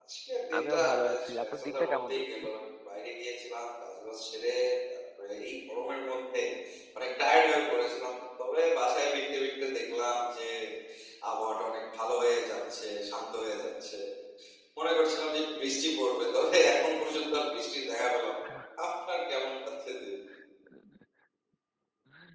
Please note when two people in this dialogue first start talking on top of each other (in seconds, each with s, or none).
0.6 s